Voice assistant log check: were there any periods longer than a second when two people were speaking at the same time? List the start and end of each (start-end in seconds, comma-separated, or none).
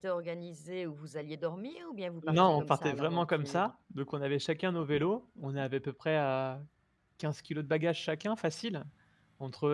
2.3-3.7